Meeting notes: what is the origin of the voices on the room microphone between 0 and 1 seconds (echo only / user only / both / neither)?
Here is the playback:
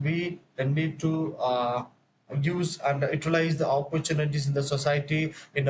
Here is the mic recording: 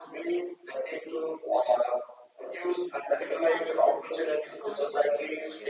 echo only